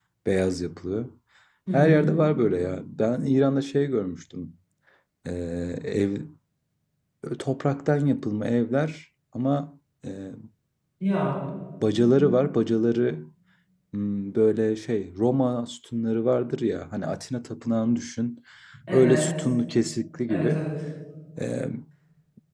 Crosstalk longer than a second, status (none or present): none